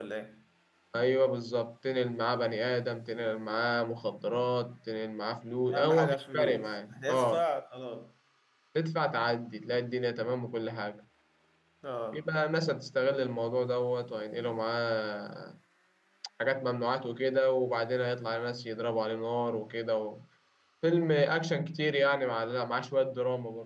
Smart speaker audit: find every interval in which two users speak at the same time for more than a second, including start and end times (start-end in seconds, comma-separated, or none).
5.7-7.4